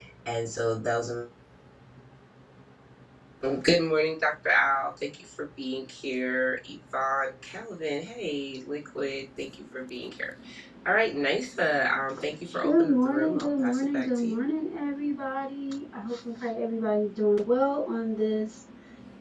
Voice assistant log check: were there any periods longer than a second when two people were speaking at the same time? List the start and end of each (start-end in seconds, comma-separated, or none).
12.6-14.4